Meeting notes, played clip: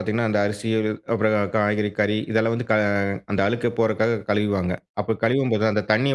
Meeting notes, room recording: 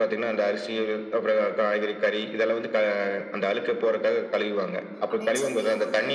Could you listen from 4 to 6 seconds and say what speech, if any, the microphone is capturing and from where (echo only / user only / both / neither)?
both